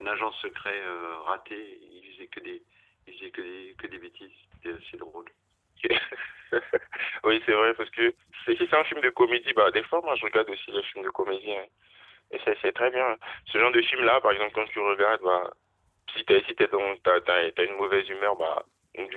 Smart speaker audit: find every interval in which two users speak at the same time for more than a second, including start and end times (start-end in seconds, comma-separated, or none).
none